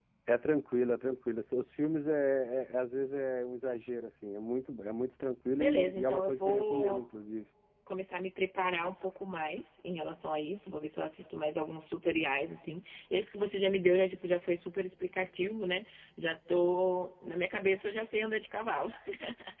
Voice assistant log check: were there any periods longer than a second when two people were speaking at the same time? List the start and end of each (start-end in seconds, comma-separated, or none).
5.6-7.0